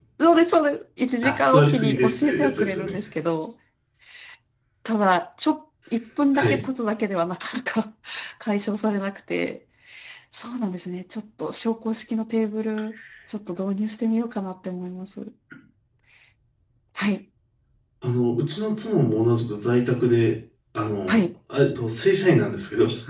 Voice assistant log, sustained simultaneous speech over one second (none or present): present